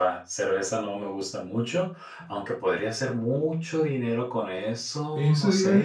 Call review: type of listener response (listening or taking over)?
taking over